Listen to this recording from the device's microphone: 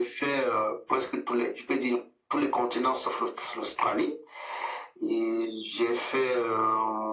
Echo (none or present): present